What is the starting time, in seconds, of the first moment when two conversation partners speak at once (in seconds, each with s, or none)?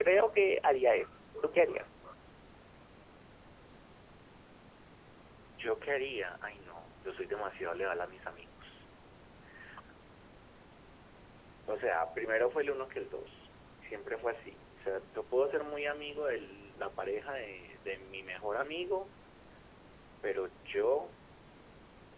none